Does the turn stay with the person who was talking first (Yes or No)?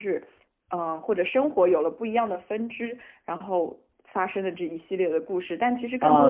No